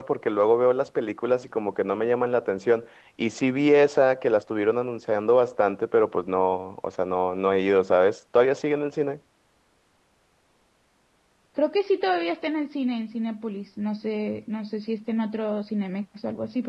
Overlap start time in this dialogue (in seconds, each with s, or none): none